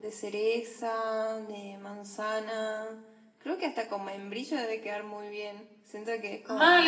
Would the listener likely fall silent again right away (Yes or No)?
No